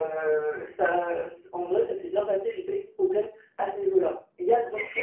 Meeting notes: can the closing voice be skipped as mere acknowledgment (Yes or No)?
No